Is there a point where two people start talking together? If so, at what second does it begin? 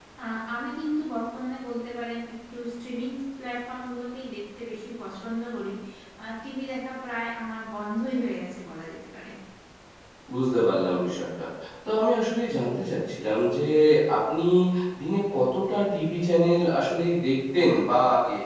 none

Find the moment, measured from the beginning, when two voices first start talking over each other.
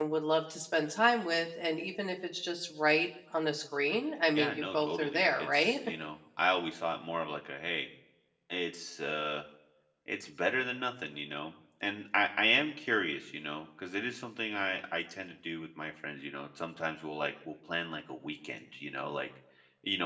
4.4 s

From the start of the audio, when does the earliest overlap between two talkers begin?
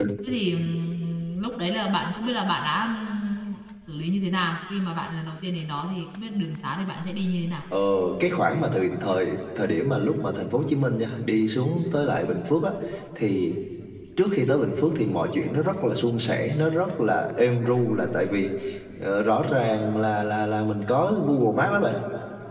none

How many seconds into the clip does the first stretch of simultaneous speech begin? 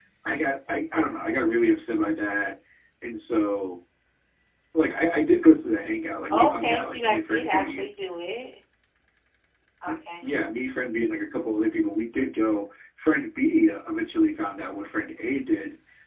6.3 s

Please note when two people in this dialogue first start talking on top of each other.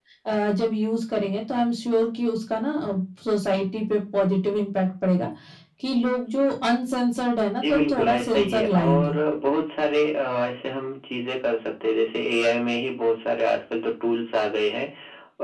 7.6 s

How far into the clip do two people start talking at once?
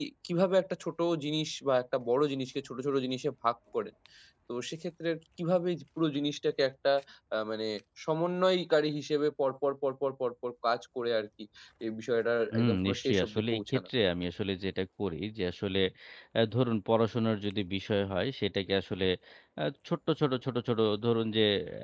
12.5 s

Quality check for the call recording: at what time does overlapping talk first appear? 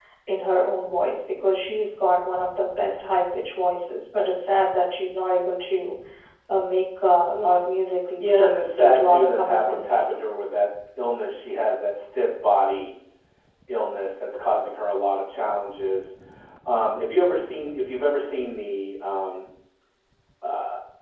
8.2 s

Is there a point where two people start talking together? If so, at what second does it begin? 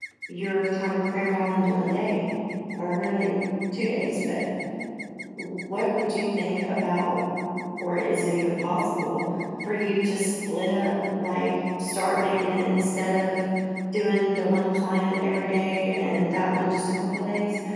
none

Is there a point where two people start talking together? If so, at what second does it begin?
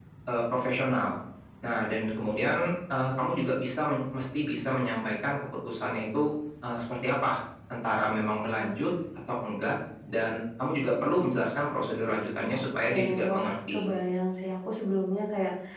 12.5 s

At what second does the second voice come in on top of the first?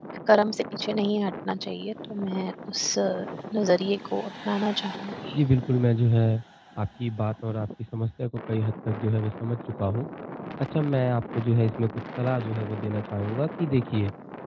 none

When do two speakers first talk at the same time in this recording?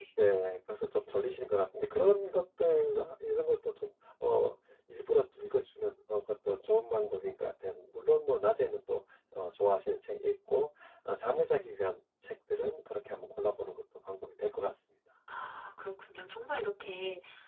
none

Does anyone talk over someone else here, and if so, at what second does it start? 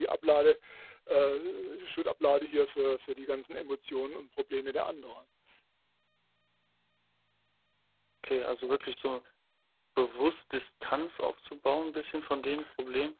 none

